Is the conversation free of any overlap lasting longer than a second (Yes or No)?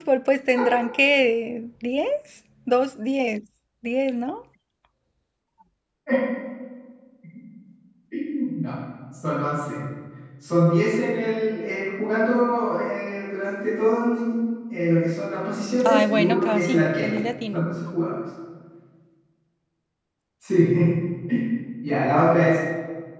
No